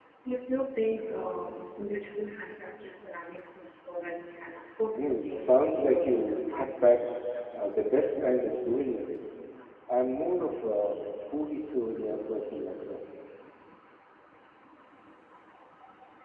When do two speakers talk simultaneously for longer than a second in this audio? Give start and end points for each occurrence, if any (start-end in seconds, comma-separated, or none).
5.0-6.7